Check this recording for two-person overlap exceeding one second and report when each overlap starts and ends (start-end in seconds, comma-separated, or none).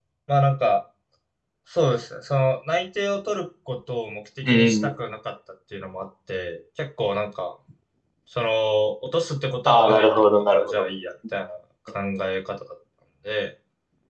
9.7-10.9